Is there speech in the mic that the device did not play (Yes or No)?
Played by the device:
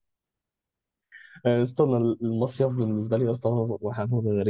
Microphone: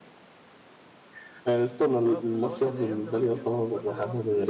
Yes